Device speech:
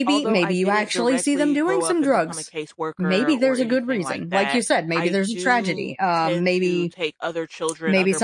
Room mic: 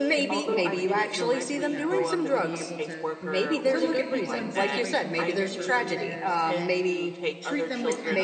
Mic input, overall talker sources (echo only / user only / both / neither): both